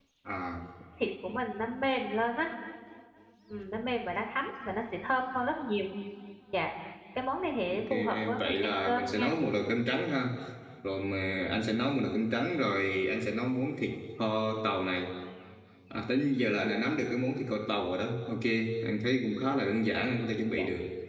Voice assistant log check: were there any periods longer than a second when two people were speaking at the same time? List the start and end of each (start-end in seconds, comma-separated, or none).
7.7-9.3